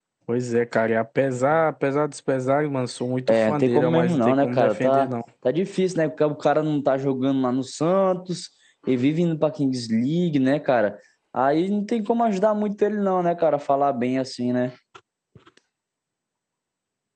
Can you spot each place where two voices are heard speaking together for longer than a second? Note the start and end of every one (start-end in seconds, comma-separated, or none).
3.3-5.1